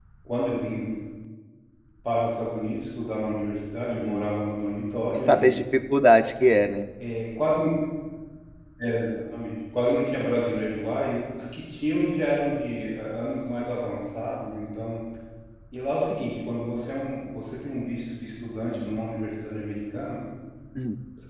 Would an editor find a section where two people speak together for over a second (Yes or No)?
No